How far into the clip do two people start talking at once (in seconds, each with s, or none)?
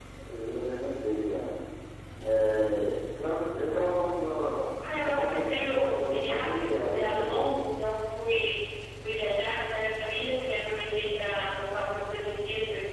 5.1 s